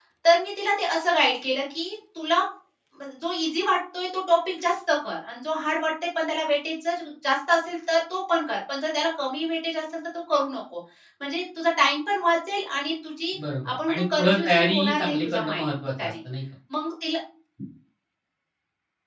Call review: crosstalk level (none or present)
present